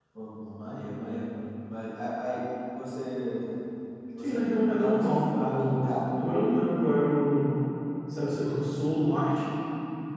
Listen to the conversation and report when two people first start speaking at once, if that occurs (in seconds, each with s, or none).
4.2 s